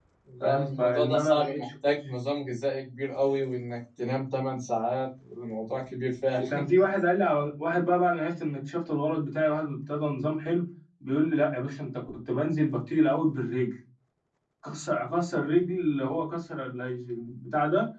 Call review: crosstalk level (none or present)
present